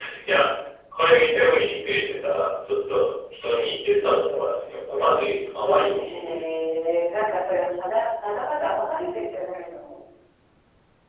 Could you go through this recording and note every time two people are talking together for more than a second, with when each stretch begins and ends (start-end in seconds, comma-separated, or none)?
none